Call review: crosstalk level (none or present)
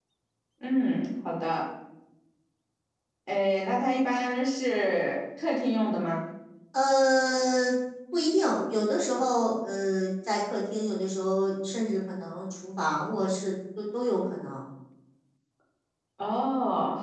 none